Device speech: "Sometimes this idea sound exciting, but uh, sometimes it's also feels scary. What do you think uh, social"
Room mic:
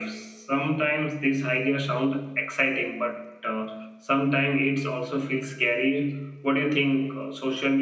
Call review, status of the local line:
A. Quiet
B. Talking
A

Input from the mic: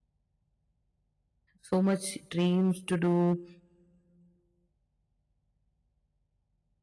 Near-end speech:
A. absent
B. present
B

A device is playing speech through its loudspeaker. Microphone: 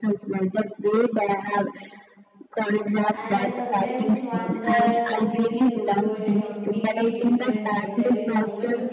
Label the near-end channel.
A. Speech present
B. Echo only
A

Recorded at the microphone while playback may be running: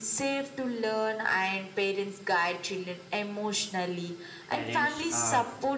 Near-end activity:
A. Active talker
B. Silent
A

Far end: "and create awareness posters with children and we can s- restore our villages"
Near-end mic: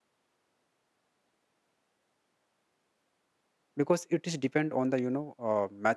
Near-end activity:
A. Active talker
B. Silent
A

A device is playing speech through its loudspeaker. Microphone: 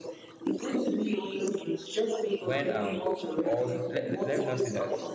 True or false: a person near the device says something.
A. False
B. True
B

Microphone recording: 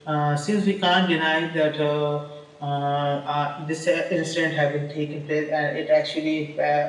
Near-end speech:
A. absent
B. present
A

